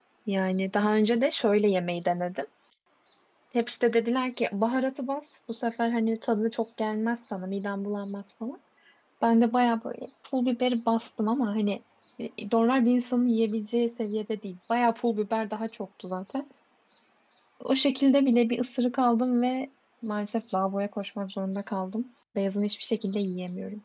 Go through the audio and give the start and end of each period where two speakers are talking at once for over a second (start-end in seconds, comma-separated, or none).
none